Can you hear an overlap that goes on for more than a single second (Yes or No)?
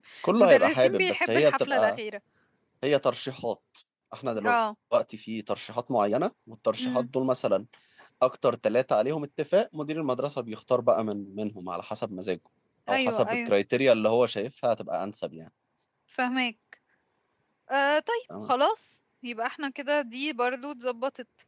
Yes